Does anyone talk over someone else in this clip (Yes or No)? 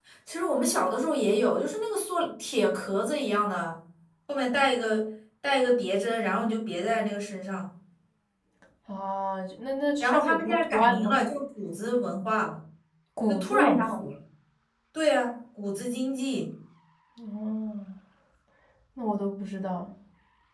Yes